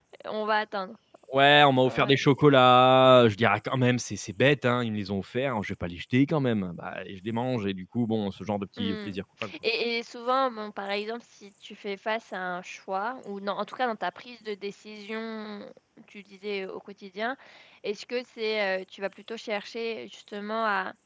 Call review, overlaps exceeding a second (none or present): none